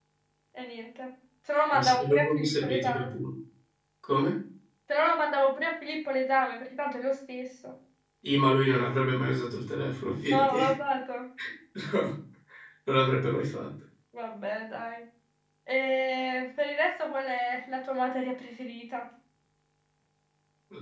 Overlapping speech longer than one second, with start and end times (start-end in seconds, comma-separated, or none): 1.7-3.1